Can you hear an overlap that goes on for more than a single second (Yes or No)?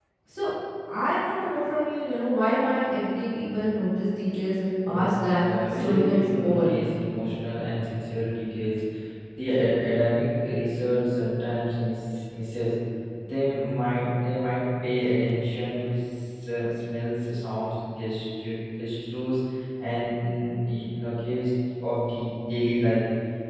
Yes